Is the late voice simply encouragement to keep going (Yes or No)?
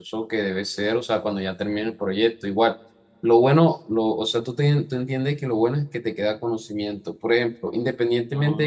Yes